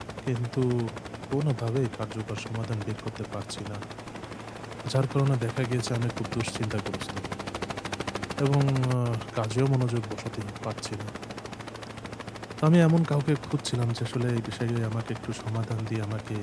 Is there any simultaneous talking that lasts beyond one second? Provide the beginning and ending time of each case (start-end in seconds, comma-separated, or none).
none